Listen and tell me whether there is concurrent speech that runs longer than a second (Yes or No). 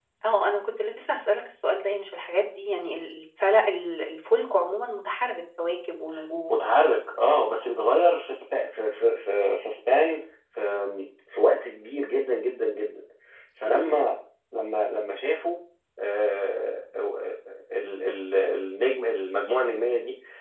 No